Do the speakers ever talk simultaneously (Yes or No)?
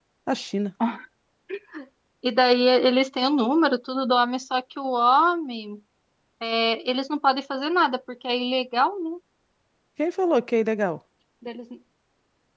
No